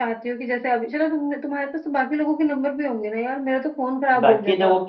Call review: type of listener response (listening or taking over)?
taking over